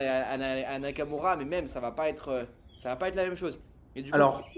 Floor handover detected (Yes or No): No